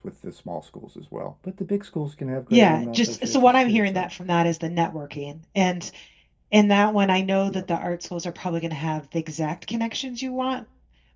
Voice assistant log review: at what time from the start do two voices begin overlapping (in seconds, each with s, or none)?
2.5 s